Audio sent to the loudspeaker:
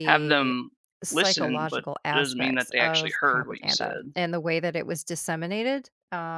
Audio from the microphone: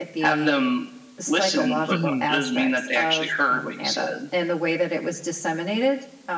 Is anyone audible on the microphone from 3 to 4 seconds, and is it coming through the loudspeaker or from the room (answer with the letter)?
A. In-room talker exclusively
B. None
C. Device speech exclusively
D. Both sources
C